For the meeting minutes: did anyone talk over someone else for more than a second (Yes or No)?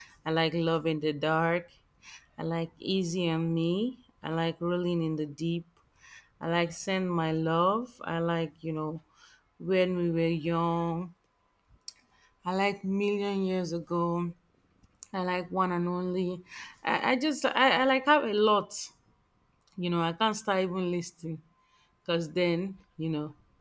No